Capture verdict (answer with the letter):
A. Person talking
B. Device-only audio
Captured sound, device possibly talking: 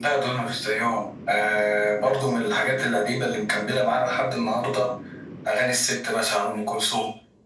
B